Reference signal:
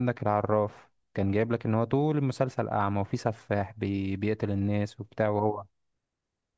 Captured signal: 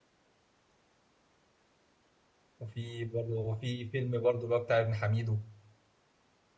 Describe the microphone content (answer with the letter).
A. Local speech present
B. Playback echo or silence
A